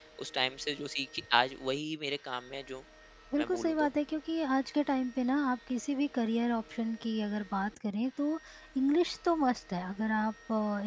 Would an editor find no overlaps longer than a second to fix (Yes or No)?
Yes